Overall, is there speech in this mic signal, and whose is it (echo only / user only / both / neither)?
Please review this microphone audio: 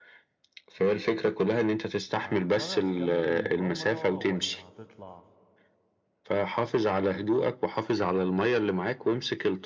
both